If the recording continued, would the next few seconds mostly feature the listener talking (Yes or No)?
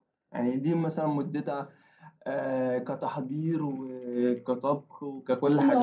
Yes